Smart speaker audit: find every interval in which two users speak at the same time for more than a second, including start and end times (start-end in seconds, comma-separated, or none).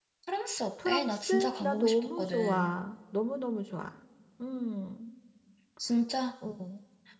0.8-2.7